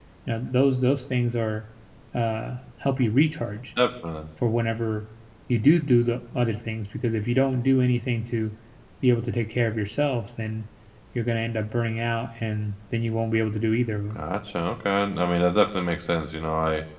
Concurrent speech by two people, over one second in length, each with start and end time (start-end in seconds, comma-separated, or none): none